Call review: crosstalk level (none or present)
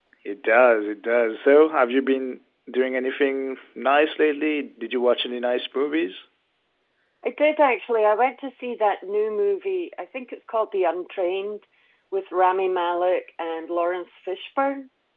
none